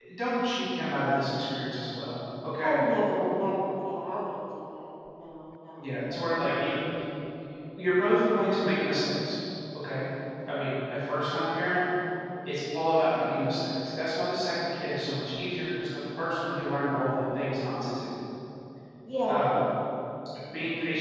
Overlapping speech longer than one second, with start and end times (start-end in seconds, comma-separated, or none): none